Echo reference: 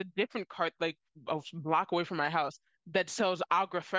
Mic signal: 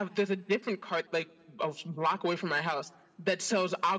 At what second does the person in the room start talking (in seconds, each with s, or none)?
none